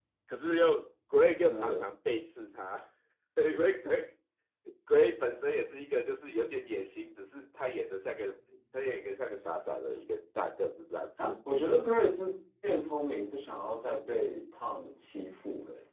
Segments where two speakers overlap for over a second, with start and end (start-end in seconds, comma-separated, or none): none